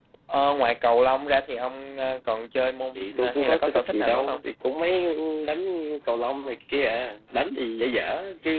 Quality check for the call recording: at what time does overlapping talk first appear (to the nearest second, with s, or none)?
3 s